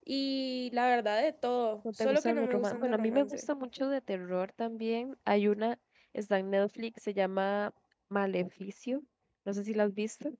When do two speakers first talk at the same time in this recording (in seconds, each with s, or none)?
1.9 s